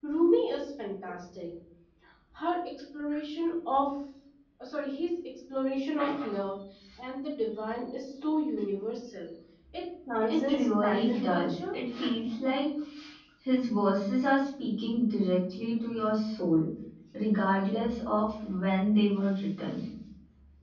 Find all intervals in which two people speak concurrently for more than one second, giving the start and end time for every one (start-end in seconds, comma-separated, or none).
10.3-11.6